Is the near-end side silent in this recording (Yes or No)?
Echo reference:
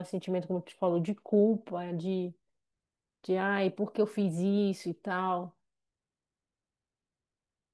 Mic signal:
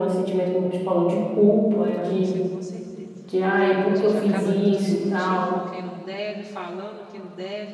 No